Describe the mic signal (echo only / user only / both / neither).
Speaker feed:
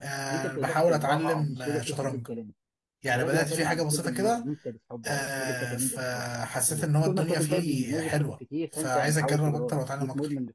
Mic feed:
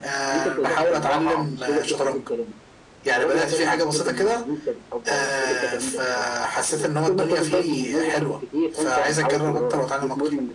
echo only